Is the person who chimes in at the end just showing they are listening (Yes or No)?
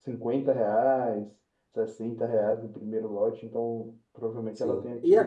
No